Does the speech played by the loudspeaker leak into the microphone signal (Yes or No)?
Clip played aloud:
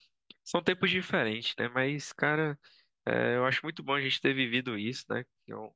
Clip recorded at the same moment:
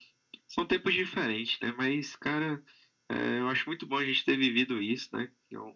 Yes